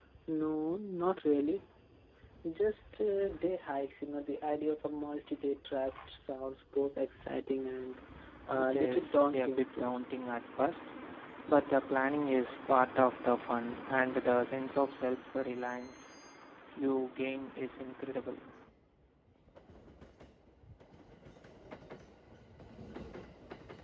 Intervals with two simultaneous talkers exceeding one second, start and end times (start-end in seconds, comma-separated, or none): 8.6-9.9